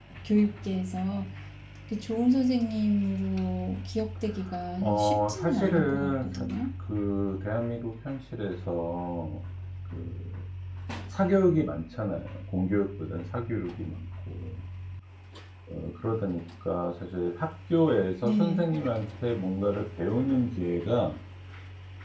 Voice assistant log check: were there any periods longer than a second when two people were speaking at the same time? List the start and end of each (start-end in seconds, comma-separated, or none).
4.8-6.3